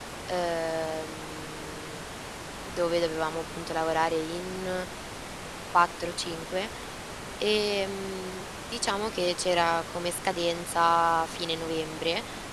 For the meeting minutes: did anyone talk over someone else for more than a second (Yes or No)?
No